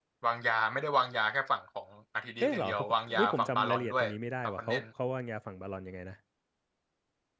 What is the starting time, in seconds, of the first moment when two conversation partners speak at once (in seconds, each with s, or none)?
2.4 s